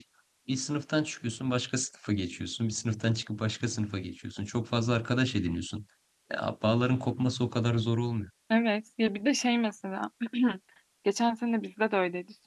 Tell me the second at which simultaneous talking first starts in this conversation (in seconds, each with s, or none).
none